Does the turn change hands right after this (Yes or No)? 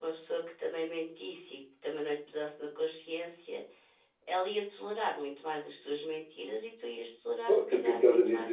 Yes